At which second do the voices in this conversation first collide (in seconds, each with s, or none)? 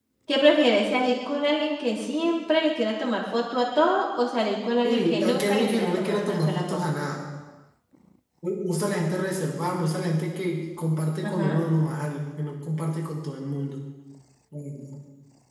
4.8 s